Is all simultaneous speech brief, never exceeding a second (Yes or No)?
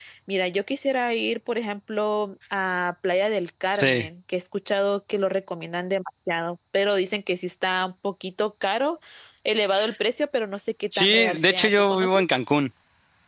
No